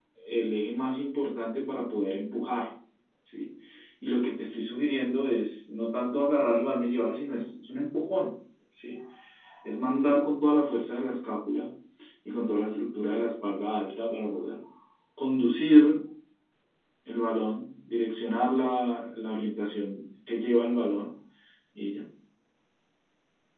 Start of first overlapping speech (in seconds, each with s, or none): none